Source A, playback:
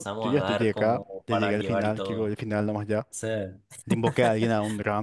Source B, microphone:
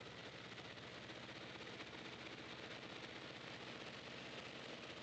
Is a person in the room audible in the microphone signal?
No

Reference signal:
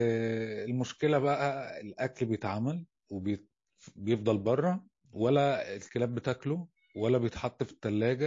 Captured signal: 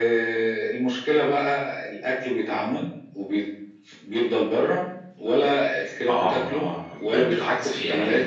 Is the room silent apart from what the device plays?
No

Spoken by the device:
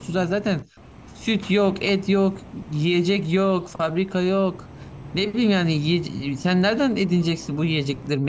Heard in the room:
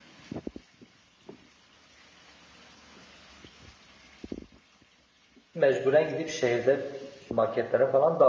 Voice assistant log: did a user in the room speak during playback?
Yes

